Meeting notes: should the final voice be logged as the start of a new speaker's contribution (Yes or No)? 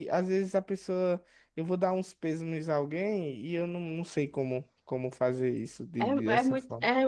Yes